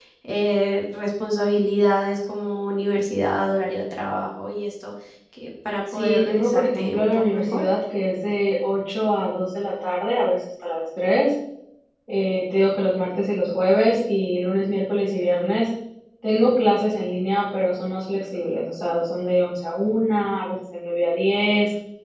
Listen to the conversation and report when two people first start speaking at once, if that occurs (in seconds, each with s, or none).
5.9 s